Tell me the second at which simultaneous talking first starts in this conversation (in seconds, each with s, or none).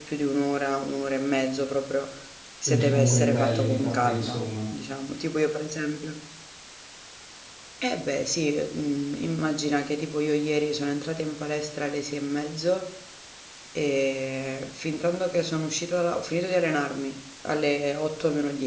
2.7 s